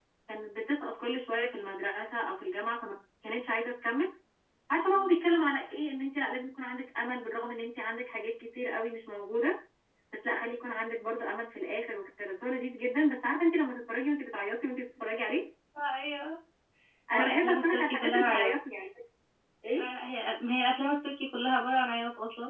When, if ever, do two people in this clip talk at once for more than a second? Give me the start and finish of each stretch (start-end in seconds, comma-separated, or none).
17.1-18.5